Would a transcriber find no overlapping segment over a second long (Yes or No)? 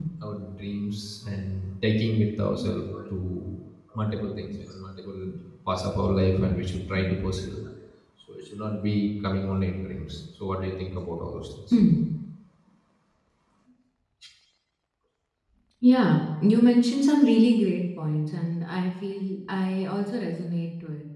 Yes